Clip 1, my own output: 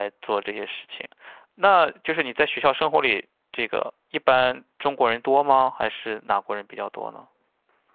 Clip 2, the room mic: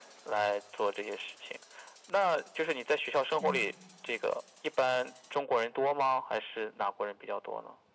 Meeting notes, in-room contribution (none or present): present